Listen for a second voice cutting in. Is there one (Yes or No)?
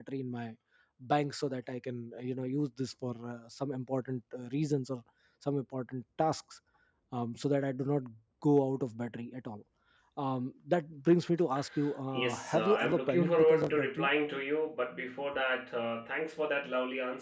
Yes